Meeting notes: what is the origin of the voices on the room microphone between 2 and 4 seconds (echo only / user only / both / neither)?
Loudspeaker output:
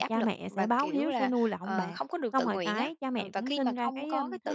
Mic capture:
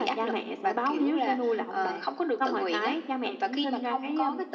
echo only